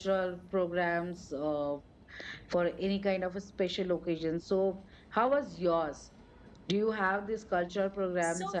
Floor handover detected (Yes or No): Yes